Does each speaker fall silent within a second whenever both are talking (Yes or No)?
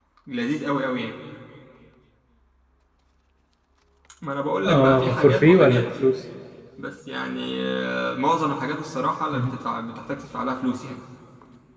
No